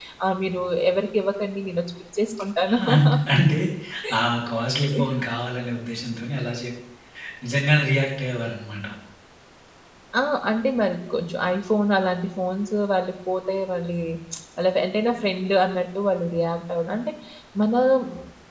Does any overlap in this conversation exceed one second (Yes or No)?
No